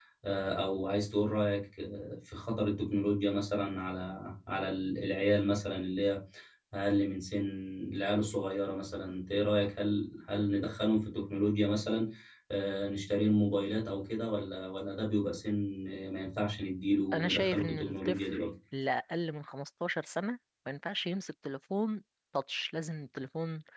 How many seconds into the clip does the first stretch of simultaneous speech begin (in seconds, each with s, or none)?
17.1 s